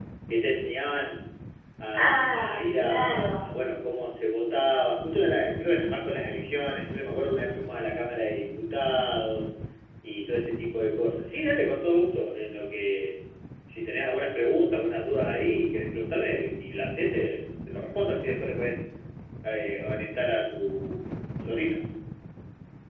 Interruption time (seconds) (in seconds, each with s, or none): 1.9 s